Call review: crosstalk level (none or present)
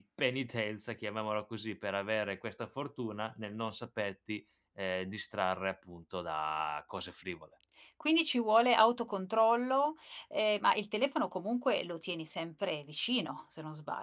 none